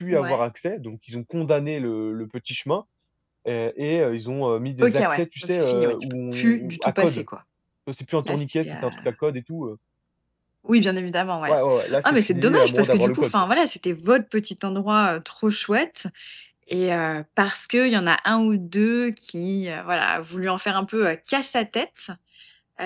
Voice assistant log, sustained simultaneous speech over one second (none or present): present